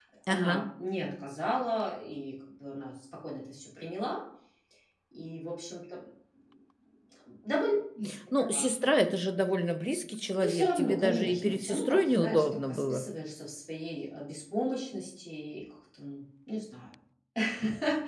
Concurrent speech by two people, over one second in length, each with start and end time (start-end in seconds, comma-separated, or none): 10.4-13.0